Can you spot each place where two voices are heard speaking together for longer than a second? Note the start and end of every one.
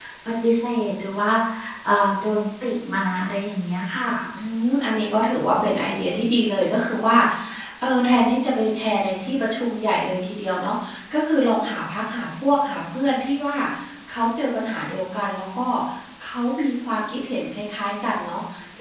none

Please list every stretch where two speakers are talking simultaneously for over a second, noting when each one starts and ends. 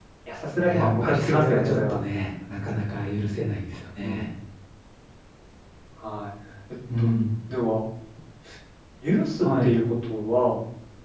0.6-2.0

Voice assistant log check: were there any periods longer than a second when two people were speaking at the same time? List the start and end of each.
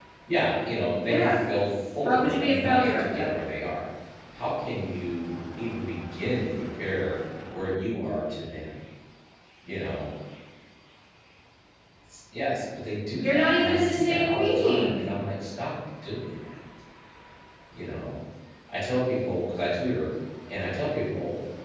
2.0-3.3, 13.2-15.0

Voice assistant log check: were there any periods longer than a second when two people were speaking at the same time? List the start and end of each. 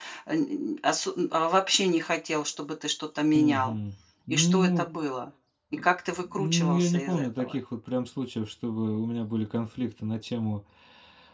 6.3-7.6

